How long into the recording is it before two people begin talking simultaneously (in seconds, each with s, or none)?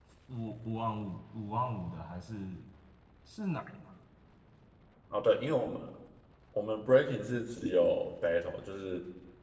none